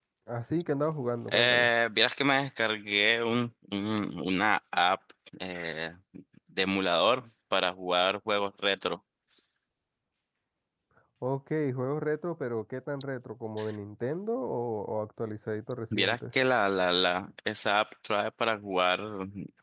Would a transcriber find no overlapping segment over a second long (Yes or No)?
Yes